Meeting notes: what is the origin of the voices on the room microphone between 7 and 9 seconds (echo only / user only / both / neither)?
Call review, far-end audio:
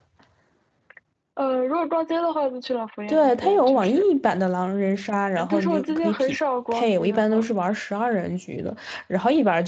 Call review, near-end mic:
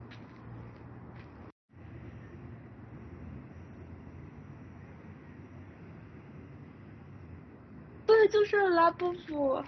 user only